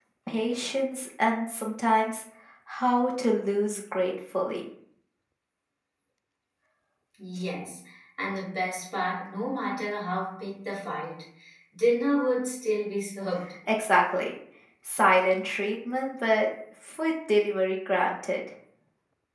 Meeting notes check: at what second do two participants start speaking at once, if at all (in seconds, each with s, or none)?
none